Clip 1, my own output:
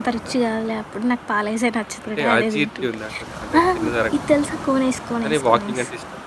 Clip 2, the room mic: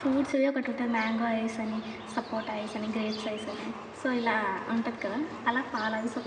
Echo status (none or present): none